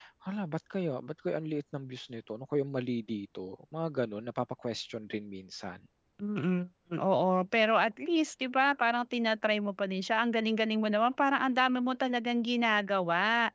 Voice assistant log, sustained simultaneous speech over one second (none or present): none